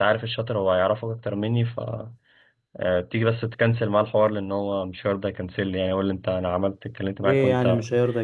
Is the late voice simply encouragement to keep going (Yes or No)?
No